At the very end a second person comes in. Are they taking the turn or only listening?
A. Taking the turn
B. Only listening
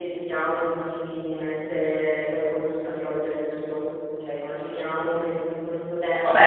A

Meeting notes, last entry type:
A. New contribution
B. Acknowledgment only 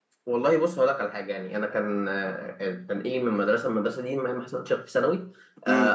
B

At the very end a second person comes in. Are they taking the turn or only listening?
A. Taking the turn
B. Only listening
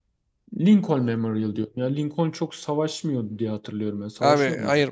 A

